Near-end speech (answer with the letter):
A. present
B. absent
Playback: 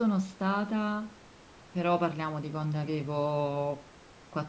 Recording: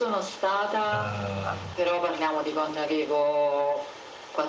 A